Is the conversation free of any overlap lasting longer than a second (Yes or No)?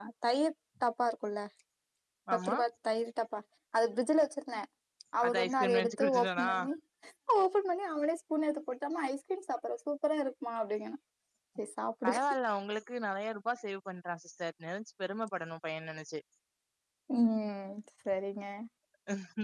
No